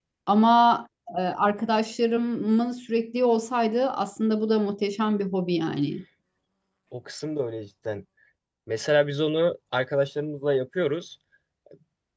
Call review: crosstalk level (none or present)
none